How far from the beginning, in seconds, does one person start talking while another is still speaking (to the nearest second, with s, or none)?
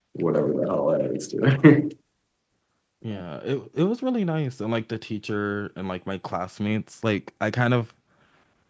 none